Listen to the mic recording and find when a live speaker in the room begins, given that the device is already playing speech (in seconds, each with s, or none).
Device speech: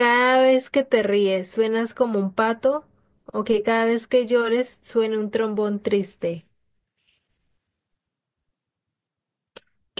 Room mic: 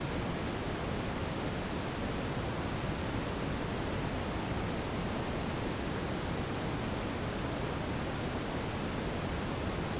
none